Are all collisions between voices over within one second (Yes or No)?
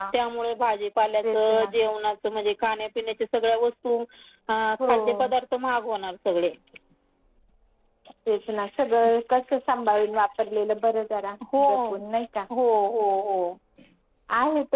Yes